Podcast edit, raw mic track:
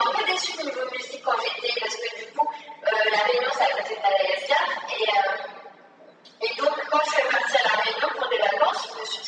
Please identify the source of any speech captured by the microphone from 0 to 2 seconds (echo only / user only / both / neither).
echo only